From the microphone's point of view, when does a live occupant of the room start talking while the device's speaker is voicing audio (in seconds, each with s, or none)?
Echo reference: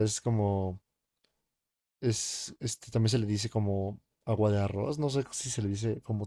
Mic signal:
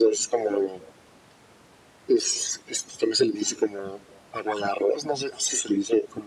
none